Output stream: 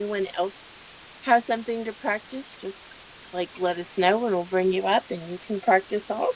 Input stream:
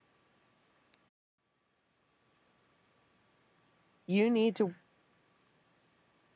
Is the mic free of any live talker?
No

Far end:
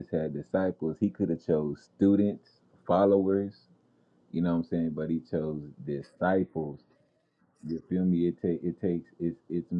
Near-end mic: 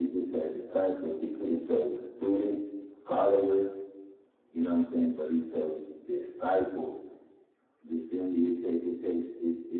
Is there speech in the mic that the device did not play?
No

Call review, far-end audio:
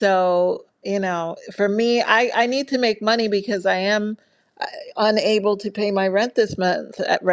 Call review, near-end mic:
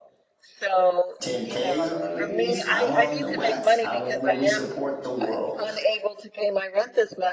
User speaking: Yes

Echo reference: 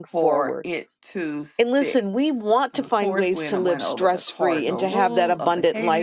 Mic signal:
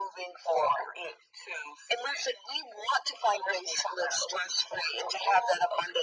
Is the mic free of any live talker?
Yes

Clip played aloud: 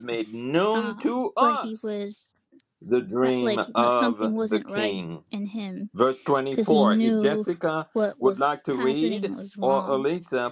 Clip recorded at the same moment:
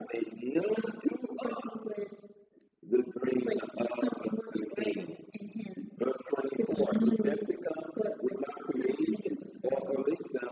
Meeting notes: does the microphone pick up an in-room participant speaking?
No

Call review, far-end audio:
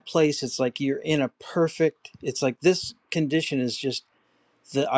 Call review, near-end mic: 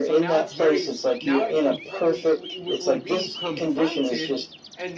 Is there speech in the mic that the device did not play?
Yes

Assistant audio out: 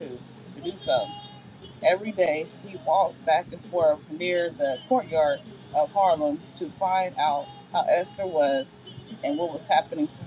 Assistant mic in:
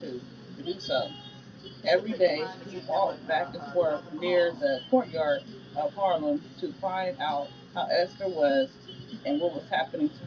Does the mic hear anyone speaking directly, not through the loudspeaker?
Yes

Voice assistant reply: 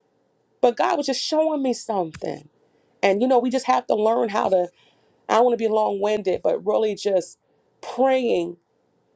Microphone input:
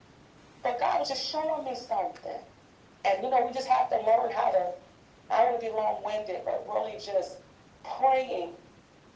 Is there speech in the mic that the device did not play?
No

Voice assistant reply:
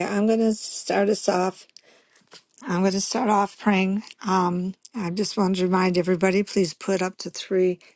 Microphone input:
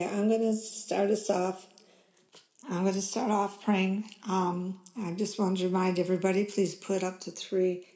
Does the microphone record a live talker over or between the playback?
No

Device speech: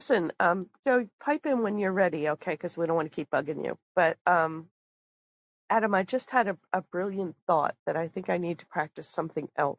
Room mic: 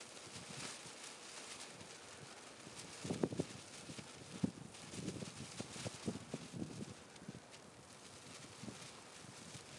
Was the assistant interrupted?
No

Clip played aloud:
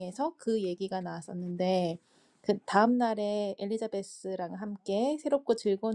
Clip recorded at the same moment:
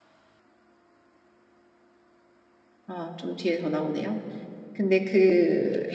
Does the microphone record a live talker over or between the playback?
Yes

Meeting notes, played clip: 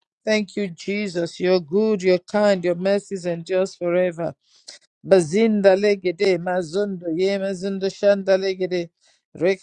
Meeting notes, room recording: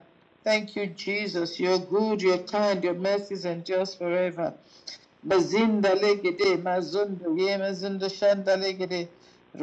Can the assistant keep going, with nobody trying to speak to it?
Yes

